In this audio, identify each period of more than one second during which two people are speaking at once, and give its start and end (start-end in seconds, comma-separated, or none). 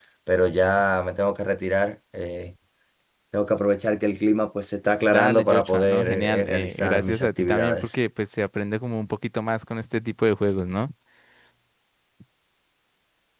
5.1-7.9